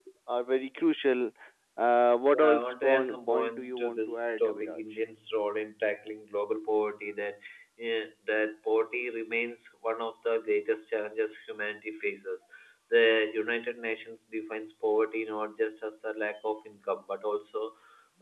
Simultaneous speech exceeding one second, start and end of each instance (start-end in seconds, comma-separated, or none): 2.3-4.8